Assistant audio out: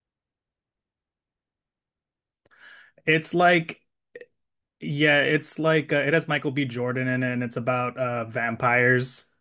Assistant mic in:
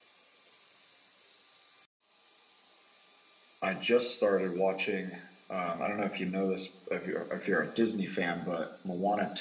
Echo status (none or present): none